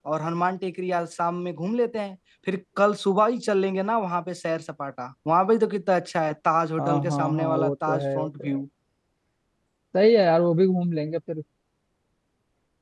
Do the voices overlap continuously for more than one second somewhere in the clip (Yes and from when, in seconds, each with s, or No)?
Yes, from 6.8 s